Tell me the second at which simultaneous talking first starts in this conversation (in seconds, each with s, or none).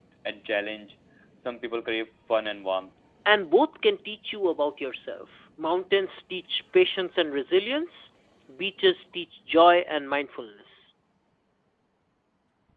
none